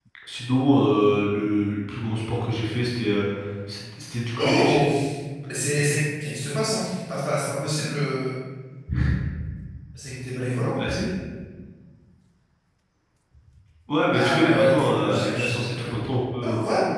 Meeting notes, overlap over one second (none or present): present